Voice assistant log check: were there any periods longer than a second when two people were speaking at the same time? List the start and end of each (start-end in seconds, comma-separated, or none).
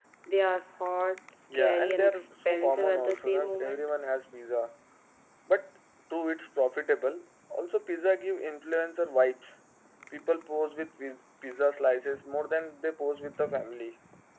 1.5-3.9